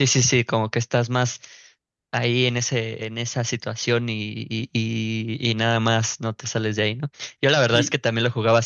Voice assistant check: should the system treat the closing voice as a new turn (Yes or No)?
No